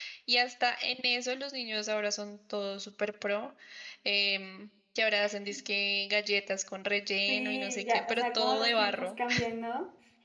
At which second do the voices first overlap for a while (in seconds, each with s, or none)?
7.3 s